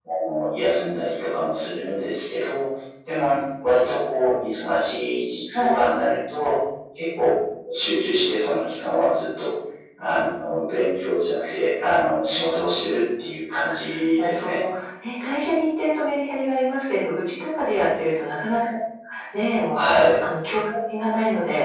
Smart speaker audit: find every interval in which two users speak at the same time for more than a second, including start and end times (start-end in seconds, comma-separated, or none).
none